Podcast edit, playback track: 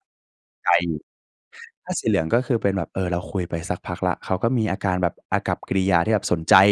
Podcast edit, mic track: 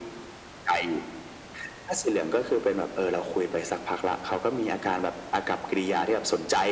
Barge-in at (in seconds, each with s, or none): none